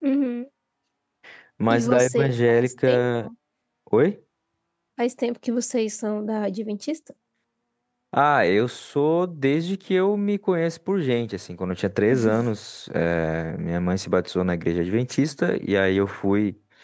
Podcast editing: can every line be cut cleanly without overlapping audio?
No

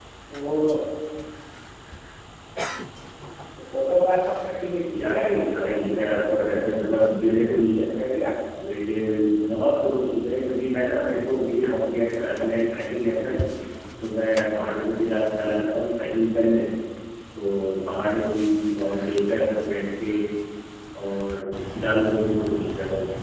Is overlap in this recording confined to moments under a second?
No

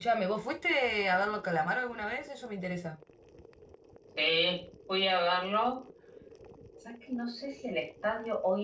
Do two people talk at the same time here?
No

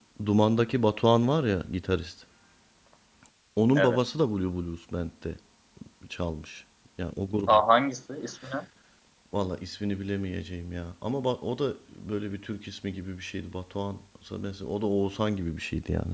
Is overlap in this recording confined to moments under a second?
Yes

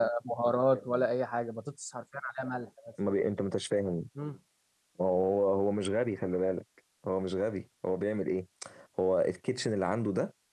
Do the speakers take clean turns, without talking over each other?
Yes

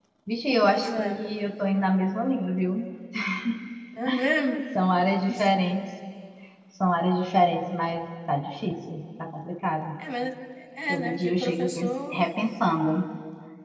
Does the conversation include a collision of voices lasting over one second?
Yes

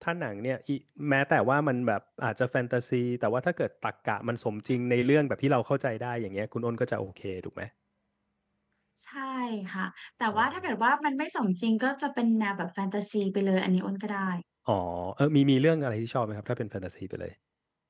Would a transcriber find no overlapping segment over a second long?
Yes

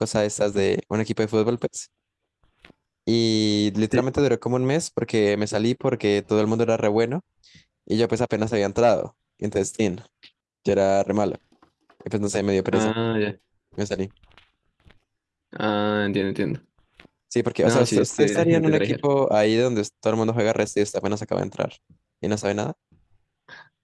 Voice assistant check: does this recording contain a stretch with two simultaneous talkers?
Yes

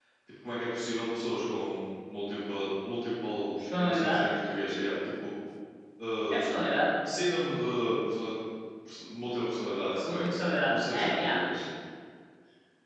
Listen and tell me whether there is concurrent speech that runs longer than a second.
Yes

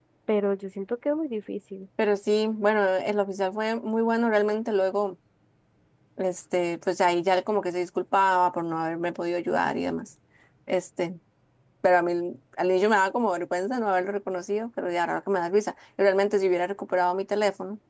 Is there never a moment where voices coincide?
Yes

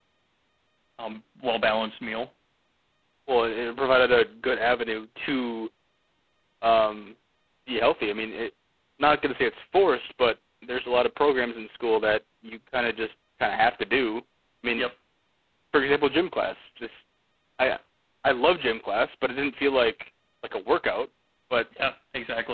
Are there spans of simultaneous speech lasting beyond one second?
No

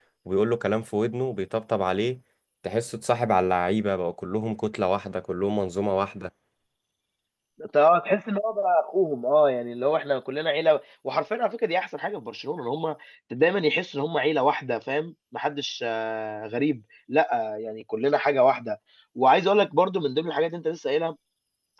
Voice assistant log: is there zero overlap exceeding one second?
Yes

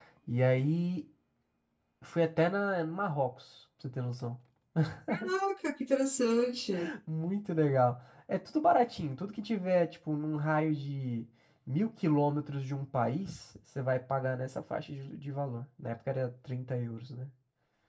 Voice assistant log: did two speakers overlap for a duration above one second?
No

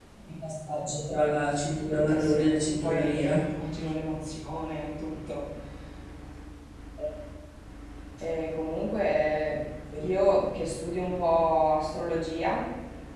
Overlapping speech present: Yes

